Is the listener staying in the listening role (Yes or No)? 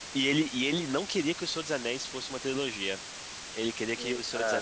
Yes